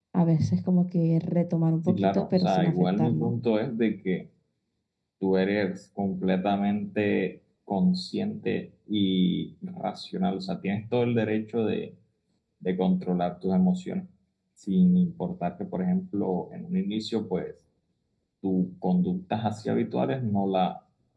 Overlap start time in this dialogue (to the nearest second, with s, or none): 2 s